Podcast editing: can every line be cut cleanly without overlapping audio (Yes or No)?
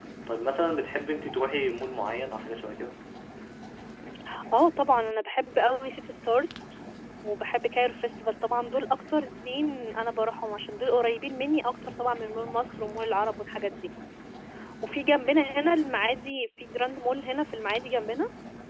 Yes